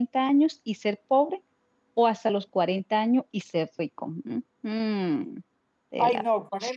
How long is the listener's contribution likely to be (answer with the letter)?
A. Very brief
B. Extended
B